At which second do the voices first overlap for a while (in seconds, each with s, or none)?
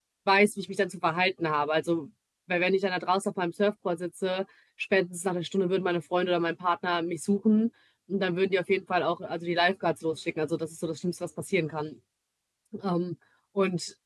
none